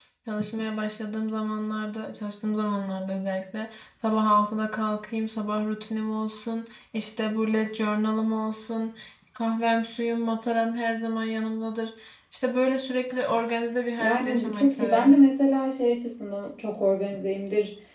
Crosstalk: present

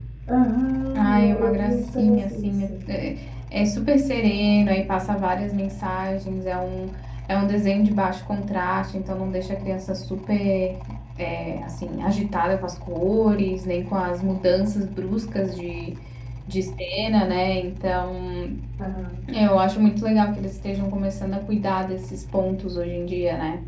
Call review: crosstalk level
present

